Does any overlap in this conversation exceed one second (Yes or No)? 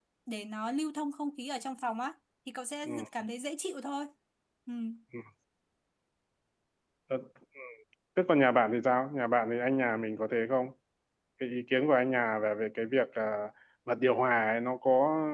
No